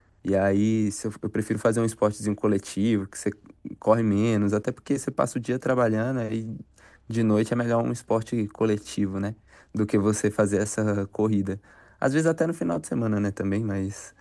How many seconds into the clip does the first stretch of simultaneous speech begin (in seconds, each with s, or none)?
none